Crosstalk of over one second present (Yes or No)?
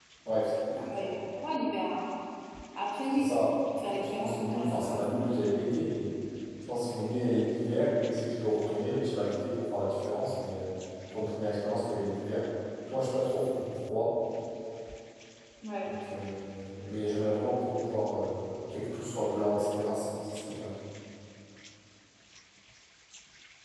Yes